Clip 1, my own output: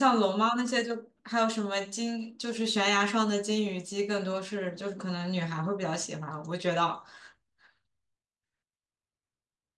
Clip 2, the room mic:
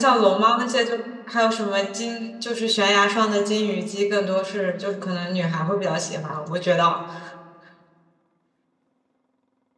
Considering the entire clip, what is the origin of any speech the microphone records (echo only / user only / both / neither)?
echo only